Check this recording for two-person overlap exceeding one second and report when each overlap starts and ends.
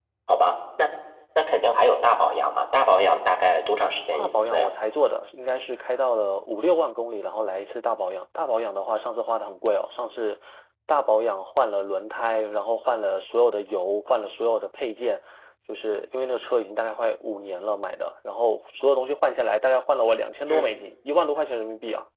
none

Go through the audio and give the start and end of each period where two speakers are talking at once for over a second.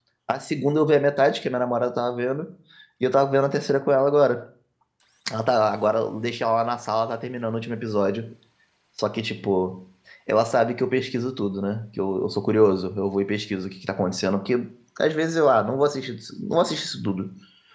none

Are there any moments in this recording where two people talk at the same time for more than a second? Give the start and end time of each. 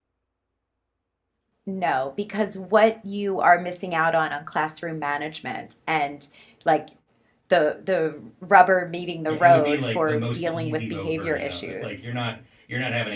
9.3-11.9

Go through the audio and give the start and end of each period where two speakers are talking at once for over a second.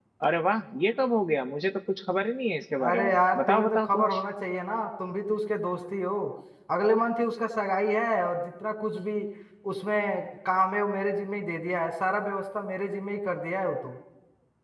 2.8-4.2

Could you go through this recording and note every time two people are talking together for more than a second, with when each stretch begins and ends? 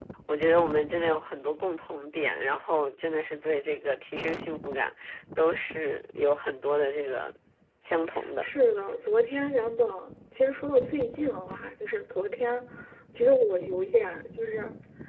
none

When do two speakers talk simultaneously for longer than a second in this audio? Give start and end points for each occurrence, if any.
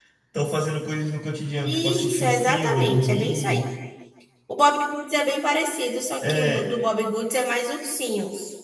1.6-3.6

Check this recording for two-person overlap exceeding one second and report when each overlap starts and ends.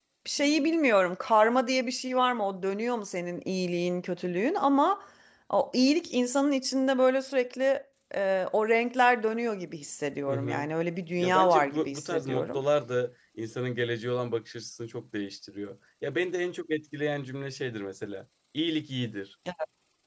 11.2-12.6

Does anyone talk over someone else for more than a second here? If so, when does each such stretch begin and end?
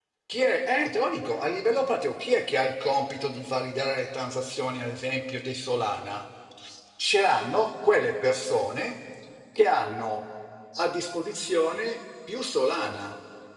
none

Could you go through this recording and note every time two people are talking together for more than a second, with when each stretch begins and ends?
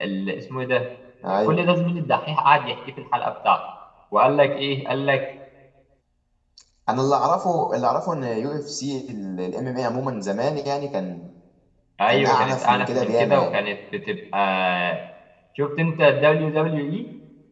12.1-13.5

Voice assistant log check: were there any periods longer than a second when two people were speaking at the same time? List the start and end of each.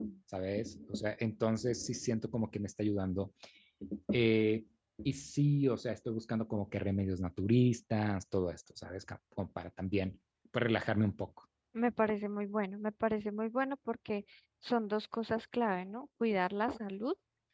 none

